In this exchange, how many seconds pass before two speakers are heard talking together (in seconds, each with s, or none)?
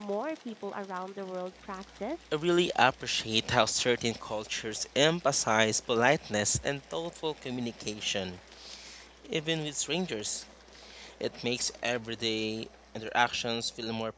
none